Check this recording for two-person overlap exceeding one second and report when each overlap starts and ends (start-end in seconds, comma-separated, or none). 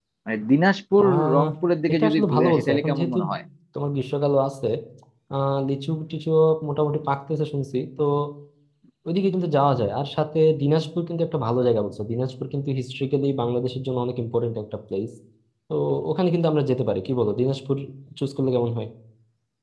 1.9-3.2